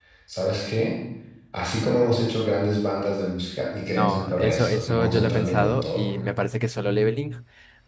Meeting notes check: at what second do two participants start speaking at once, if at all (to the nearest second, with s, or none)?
4 s